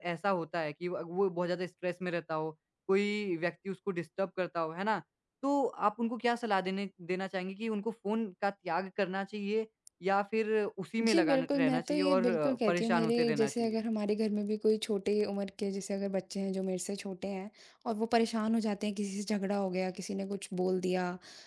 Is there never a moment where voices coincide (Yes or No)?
No